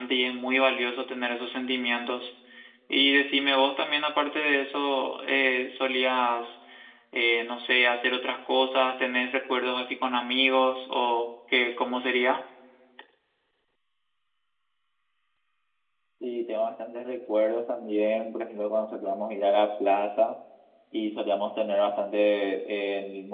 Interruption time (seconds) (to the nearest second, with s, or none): none